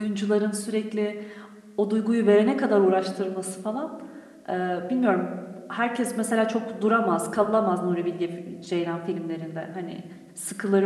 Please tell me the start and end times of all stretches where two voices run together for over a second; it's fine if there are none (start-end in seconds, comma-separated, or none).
none